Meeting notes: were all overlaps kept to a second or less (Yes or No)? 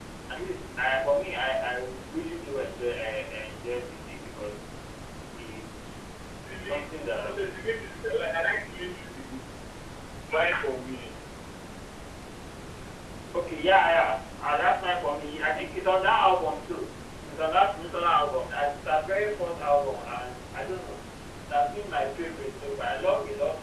Yes